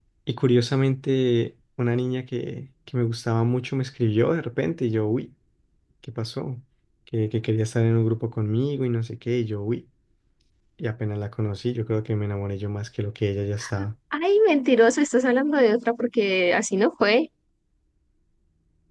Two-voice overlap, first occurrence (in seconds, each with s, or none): none